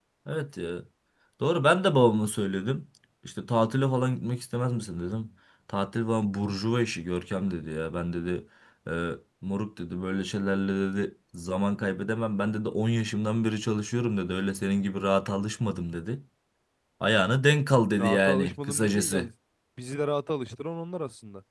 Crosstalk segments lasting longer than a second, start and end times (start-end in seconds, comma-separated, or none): 18.0-19.3